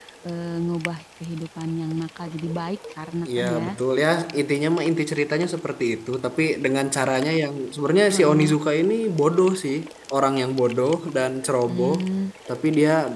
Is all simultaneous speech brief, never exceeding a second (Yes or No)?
Yes